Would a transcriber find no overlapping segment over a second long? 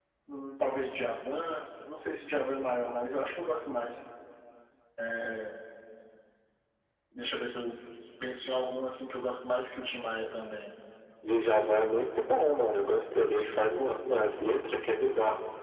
Yes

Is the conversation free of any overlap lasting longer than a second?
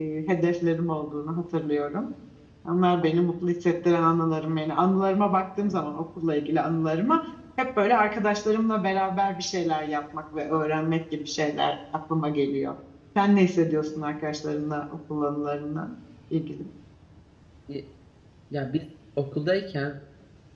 Yes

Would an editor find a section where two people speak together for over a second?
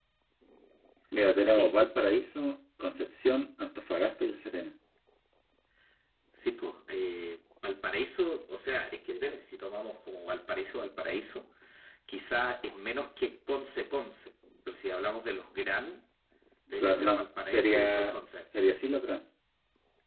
Yes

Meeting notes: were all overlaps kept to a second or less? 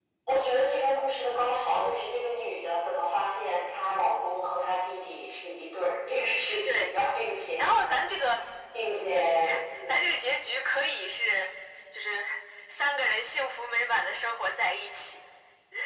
Yes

